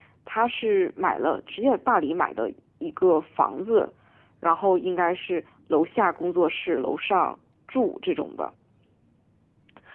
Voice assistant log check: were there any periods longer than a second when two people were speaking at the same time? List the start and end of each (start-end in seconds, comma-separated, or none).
none